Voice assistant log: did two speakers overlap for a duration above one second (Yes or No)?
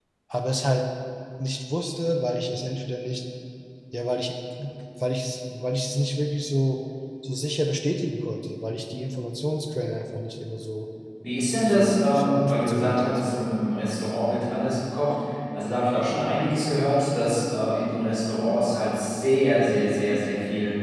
Yes